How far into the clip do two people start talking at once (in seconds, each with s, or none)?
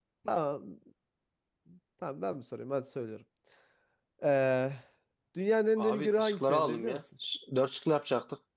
5.8 s